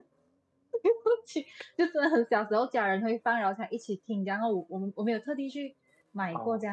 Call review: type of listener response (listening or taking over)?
listening